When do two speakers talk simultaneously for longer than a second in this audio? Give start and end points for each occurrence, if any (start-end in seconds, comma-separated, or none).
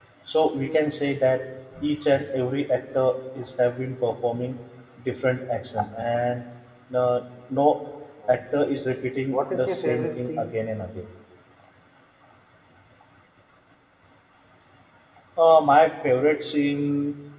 9.3-10.5